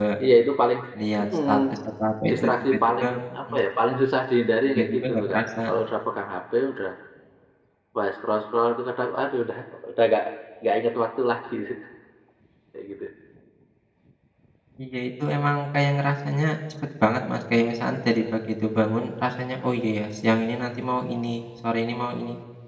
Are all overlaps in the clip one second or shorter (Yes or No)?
No